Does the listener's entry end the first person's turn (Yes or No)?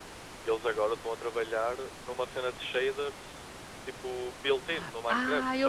Yes